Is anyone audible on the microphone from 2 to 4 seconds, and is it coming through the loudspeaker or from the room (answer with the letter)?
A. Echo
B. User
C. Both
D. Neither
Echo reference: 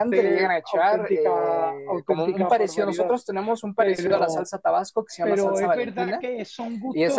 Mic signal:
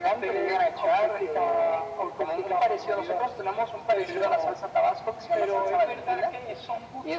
A